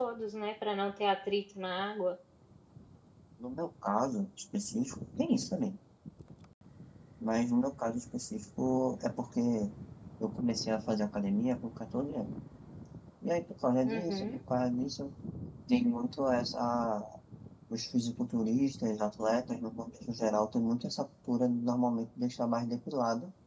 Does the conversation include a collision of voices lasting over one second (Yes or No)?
No